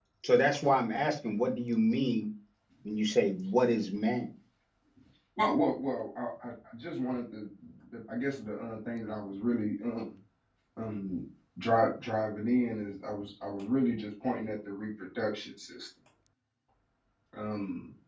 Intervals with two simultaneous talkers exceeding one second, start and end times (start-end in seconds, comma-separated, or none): none